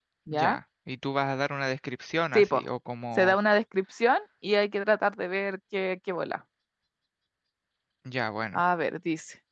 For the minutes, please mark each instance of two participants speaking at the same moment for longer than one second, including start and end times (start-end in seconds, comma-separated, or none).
none